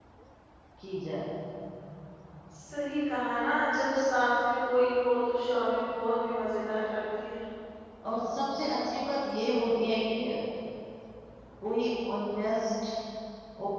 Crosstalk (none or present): none